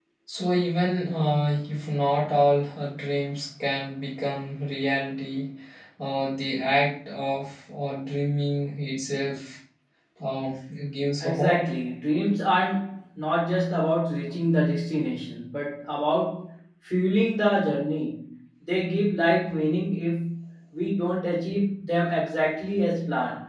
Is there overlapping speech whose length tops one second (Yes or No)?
No